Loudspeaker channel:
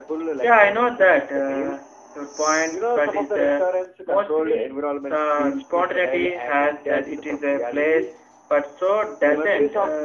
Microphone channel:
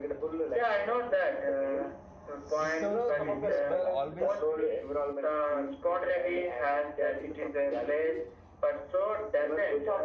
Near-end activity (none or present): present